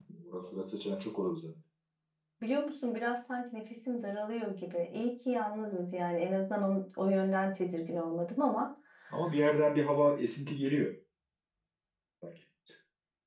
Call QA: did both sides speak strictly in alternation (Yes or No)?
Yes